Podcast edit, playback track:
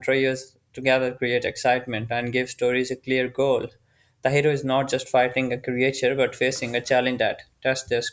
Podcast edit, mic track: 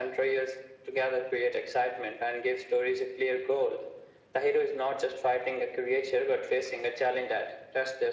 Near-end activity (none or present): none